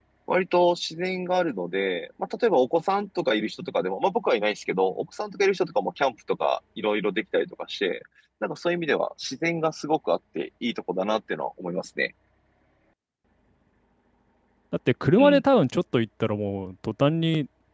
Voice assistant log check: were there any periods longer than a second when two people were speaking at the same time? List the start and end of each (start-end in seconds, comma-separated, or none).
none